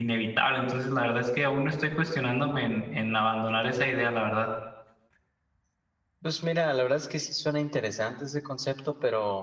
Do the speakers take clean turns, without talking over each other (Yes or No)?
Yes